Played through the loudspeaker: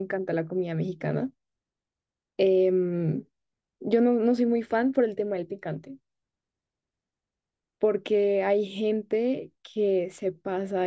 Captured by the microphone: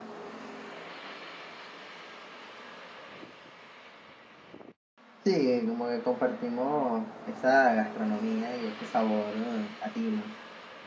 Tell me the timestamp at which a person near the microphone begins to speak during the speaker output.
5 s

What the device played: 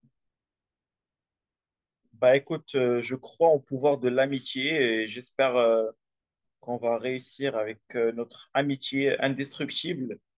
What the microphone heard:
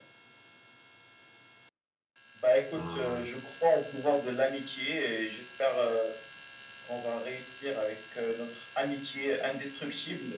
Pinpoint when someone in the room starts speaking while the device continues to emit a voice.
3 s

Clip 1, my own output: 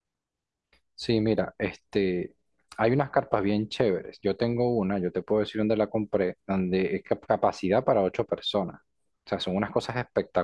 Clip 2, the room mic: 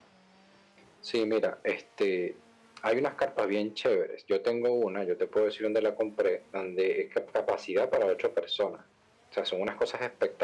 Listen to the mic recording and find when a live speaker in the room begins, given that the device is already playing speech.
none

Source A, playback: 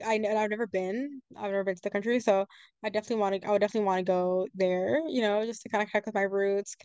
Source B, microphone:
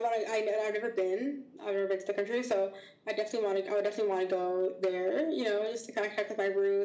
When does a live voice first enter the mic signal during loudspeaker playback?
none

